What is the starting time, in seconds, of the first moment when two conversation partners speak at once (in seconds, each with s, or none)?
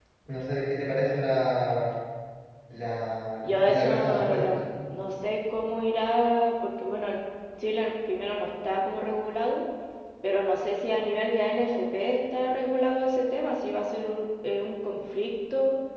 3.4 s